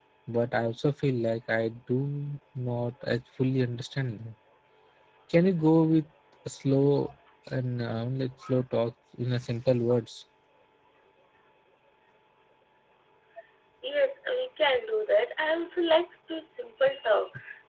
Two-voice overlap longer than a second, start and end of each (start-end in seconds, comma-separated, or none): none